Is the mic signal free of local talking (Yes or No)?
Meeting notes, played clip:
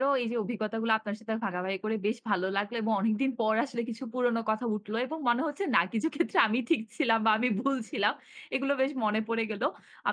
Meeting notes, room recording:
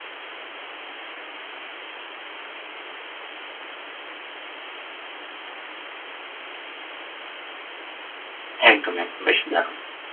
No